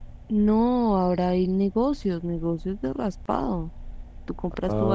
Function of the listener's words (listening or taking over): listening